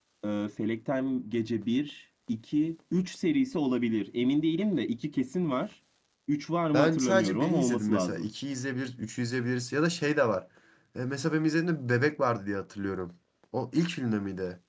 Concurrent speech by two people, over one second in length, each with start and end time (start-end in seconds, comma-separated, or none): 6.7-8.3